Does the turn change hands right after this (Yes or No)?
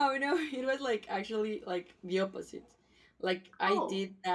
No